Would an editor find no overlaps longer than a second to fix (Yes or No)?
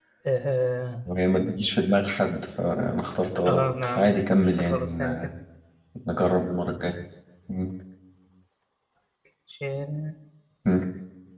No